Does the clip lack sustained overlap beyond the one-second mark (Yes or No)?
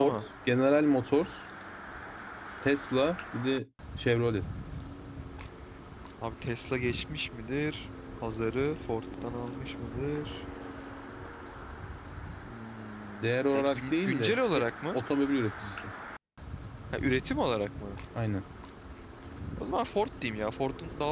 No